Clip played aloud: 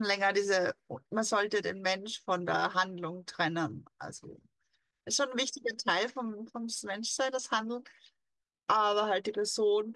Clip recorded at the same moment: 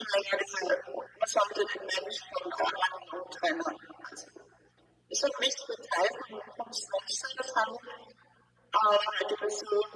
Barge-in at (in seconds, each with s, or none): none